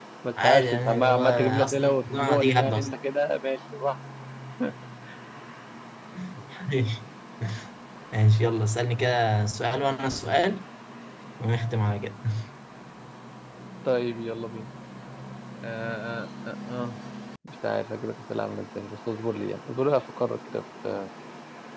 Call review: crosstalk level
present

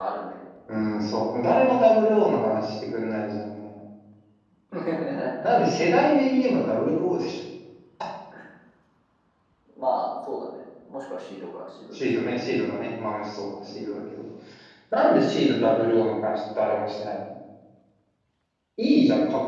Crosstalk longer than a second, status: none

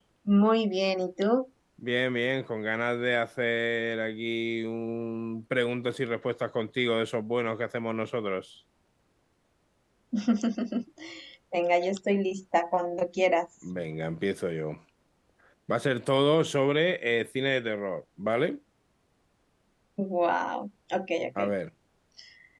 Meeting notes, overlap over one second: none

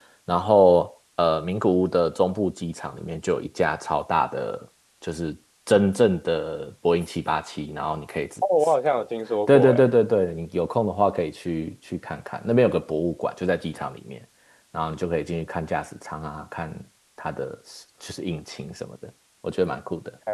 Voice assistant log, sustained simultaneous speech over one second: none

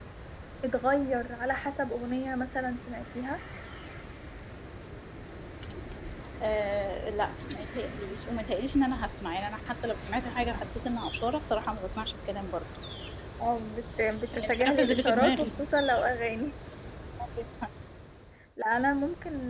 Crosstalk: present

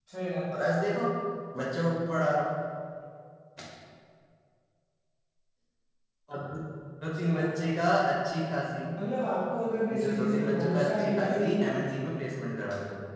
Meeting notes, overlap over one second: present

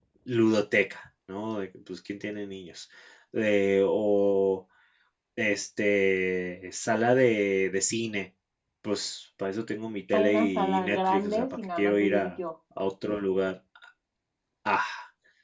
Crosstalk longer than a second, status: present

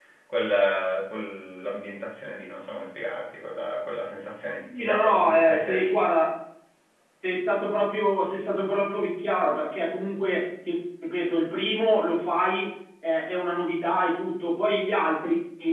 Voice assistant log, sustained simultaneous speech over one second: present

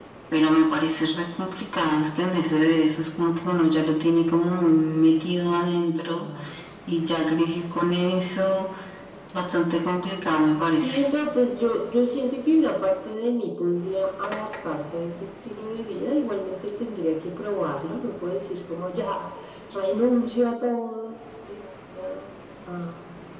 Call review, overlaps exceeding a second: none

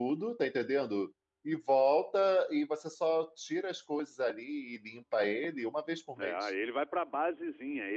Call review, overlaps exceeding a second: none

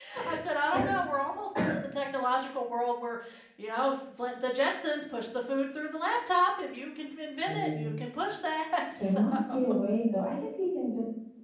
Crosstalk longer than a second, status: none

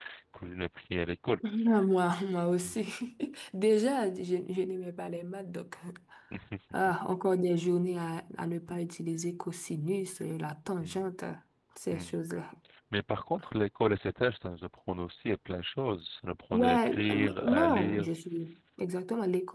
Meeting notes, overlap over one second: present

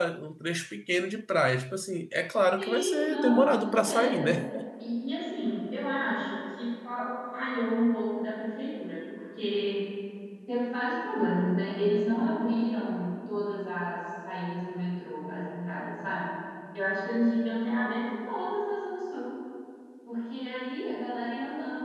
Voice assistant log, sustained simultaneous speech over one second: present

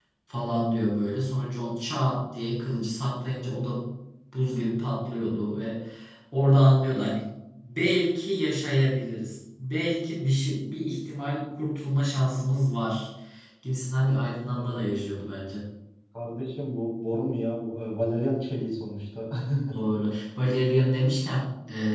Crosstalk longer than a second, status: none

